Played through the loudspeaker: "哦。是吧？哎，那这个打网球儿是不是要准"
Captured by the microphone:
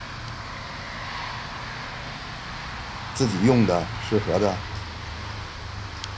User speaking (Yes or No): Yes